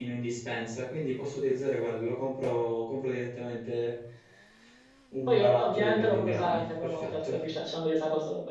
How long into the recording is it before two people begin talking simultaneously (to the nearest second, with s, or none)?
5 s